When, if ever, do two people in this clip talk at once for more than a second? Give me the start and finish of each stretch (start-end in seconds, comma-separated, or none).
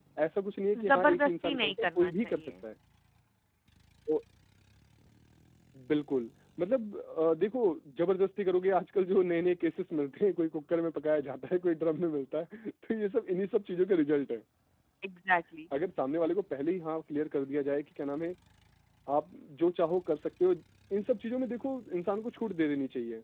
0.9-2.5